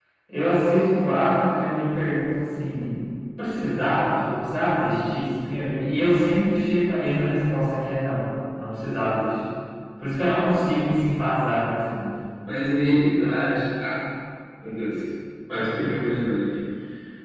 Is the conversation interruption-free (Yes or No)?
Yes